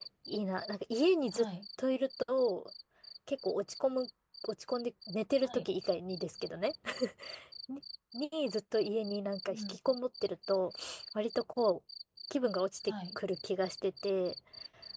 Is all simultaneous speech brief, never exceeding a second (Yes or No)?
Yes